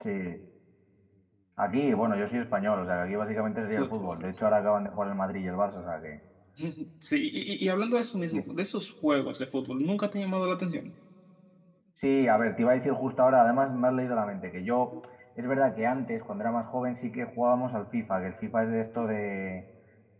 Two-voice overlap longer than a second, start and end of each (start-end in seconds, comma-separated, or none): none